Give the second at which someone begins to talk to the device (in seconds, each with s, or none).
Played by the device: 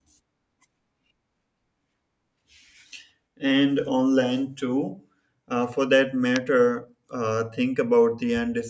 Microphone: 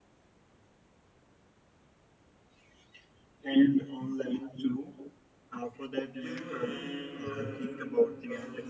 6.1 s